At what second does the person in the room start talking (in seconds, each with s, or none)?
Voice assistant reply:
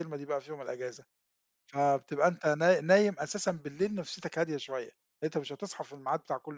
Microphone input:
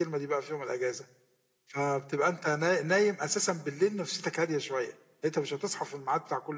none